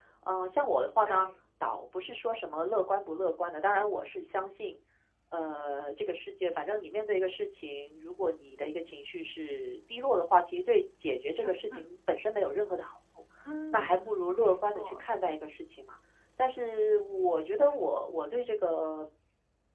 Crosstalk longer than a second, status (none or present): present